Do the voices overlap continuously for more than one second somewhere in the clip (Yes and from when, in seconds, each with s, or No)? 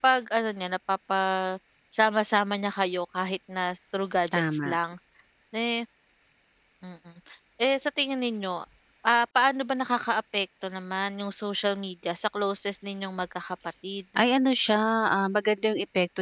No